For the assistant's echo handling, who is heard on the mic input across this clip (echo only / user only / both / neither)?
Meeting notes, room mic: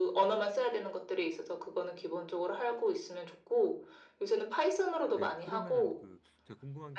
both